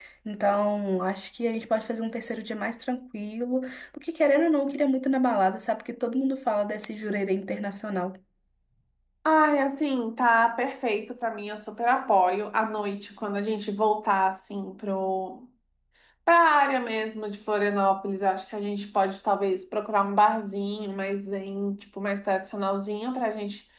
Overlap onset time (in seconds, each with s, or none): none